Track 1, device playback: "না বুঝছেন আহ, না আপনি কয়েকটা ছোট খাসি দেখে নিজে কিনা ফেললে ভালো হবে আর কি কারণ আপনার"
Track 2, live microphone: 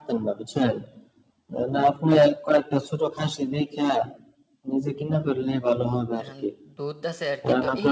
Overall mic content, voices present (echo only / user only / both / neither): both